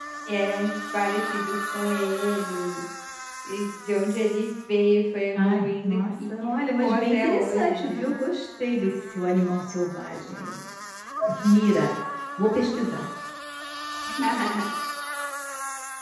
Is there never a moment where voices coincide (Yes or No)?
No